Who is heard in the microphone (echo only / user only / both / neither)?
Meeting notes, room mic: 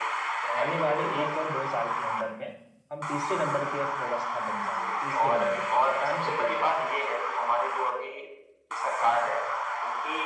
both